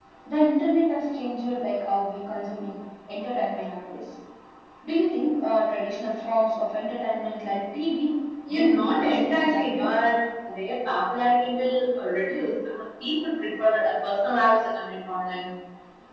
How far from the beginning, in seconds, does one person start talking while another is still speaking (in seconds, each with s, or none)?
8.4 s